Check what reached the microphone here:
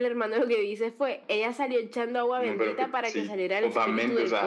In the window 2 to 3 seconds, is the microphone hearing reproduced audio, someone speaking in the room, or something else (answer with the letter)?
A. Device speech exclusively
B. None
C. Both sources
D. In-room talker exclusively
A